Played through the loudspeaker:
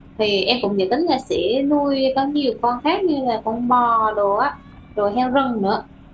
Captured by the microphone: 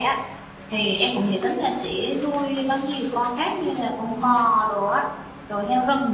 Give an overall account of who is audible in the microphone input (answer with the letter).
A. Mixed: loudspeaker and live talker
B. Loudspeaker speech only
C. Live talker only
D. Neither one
B